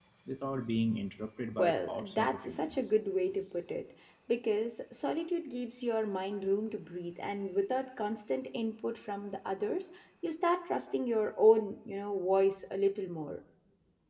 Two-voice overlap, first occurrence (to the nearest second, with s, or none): 2 s